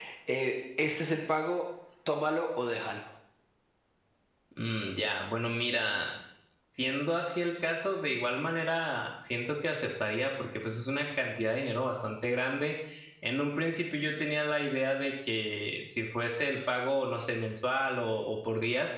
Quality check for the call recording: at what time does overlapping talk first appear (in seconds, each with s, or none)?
none